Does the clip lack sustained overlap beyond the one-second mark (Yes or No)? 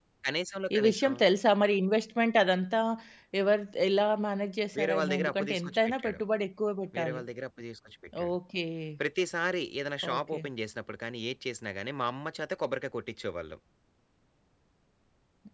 No